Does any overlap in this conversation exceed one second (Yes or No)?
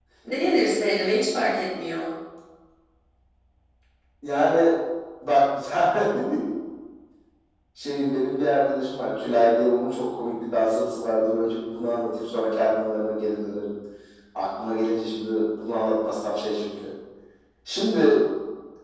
No